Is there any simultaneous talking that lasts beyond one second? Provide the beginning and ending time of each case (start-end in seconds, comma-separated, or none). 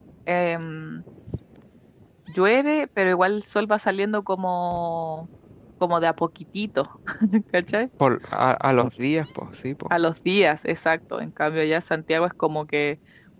none